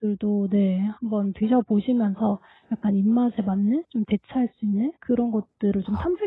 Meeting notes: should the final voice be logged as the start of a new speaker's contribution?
No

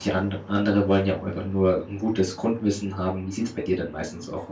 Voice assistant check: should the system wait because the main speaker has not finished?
No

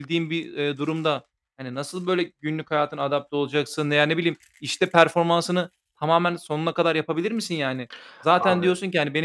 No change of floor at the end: Yes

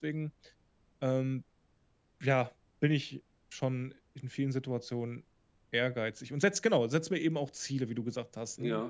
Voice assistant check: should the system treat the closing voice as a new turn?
Yes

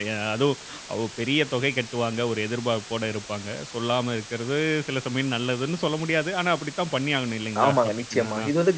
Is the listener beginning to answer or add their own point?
Yes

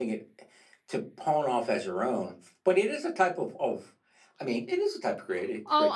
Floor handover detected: Yes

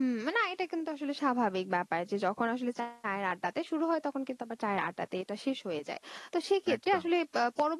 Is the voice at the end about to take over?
No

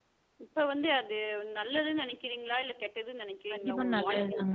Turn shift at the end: Yes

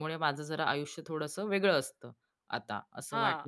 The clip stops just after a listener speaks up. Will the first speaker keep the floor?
No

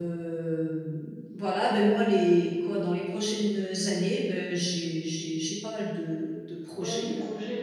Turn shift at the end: Yes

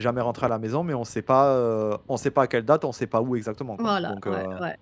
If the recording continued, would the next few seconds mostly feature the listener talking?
Yes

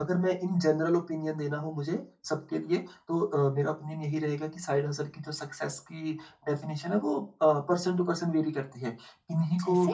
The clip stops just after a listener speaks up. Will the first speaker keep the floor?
Yes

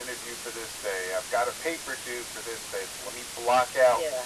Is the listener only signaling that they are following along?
Yes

